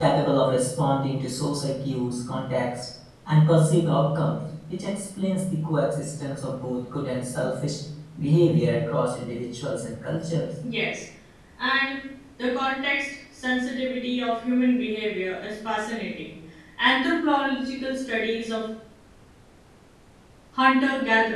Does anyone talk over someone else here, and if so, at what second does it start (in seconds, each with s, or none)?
none